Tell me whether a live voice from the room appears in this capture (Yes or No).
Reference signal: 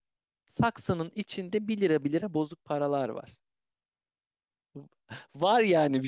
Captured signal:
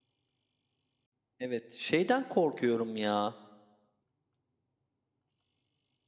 Yes